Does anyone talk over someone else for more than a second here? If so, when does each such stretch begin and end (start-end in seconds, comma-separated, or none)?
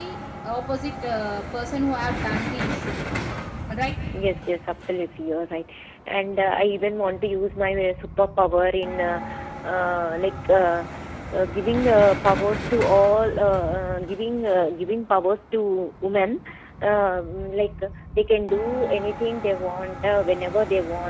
none